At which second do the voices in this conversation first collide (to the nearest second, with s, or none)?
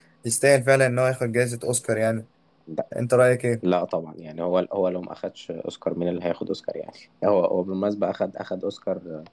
none